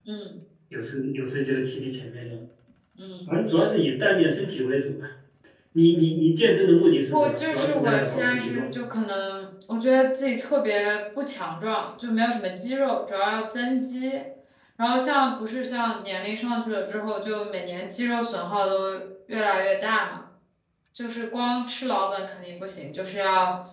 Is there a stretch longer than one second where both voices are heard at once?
Yes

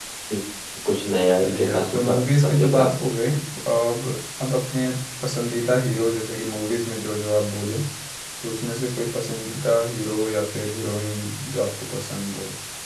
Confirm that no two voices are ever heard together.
No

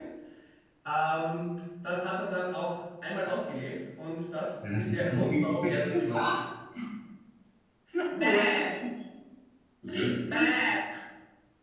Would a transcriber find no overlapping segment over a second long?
No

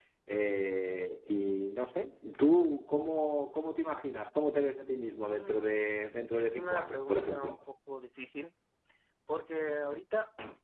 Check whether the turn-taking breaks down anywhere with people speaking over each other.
Yes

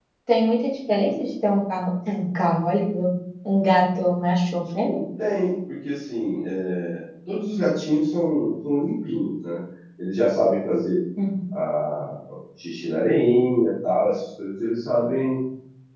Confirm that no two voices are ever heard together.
Yes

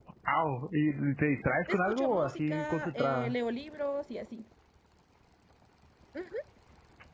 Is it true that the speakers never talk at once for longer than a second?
No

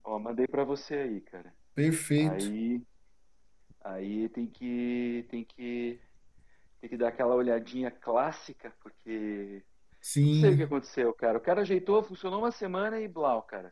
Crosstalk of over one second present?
No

